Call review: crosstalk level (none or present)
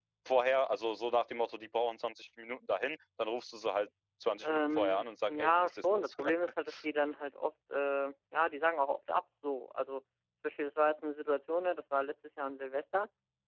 present